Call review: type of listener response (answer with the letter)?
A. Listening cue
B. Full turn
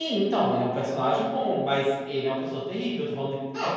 B